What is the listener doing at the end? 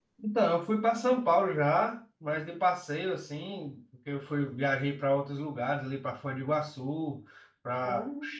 listening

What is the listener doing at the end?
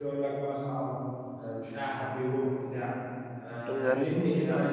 listening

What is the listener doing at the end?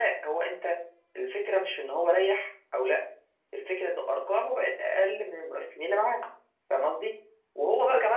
listening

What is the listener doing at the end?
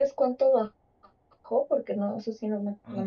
taking over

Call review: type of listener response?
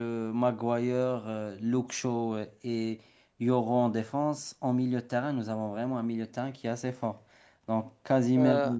listening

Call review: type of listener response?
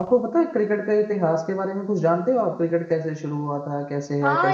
taking over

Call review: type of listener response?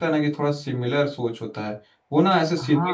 listening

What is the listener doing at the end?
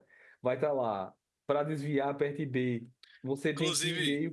listening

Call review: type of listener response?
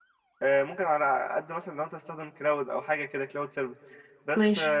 listening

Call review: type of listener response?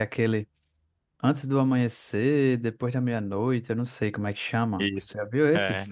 taking over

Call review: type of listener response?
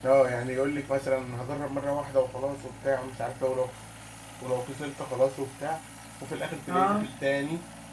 listening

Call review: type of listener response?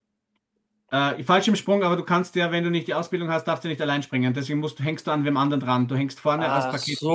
taking over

